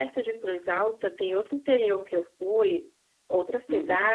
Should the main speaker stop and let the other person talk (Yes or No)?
No